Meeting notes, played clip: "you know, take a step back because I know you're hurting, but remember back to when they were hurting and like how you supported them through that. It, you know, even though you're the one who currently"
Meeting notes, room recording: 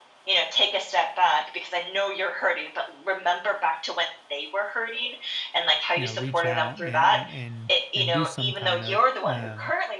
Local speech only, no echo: you know, reach out and and and do some kind of um,

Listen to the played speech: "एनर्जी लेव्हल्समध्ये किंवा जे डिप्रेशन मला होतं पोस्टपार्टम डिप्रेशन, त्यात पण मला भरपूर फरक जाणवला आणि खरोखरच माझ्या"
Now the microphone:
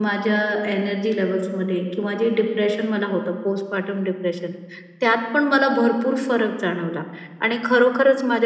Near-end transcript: none

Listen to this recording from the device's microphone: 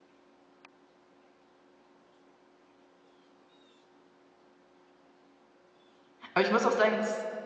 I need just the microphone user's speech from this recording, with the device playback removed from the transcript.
aber ich muss auch sagen, das ist

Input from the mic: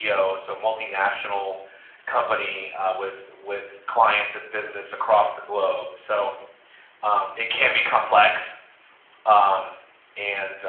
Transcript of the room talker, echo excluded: none

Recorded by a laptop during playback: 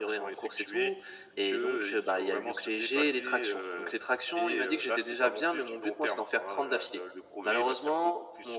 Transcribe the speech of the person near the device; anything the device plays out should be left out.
none

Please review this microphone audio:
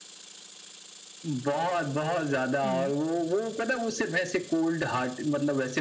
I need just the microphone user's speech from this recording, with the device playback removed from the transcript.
हुँ।

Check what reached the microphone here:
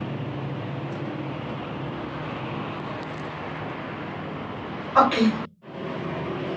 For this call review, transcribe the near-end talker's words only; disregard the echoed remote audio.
Okey,

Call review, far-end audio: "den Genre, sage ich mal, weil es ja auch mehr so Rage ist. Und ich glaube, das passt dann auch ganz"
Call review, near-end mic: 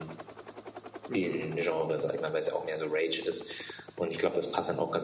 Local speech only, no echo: mhm.

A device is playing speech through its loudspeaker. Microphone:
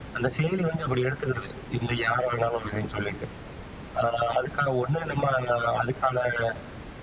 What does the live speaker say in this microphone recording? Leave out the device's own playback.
none

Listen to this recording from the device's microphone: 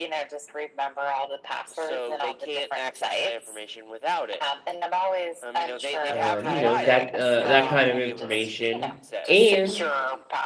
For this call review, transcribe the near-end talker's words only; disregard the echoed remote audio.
um, you know, that uh, that kind of information. And

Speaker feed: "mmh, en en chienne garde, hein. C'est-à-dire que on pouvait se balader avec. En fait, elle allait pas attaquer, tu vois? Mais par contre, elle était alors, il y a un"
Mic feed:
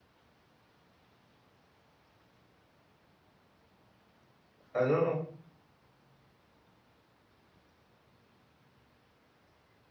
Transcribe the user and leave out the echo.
ah non, non.

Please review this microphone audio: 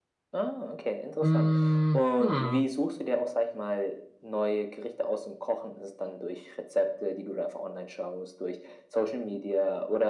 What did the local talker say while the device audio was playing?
Hm, hm.

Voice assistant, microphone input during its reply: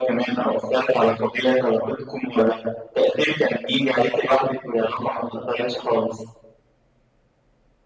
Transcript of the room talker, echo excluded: none

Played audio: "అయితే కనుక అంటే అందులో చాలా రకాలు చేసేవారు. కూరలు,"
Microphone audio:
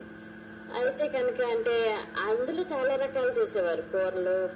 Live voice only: none

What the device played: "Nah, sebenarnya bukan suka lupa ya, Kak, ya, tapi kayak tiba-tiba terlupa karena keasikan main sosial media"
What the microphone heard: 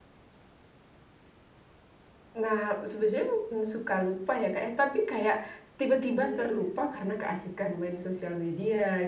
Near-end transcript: Iya iya.

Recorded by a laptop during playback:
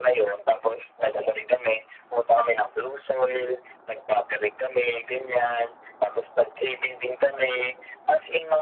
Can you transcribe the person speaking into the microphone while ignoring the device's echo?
none

